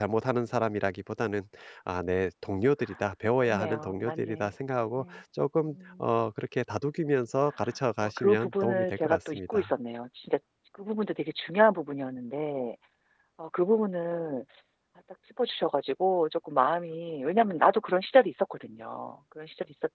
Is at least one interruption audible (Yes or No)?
Yes